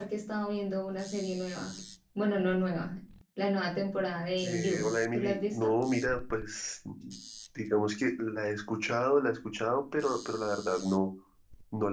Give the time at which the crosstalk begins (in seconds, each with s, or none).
4.4 s